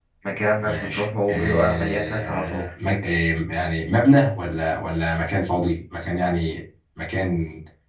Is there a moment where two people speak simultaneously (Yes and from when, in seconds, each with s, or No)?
Yes, from 0.6 s